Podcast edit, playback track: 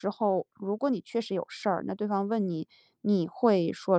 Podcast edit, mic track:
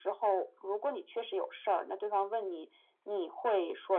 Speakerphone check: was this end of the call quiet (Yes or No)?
Yes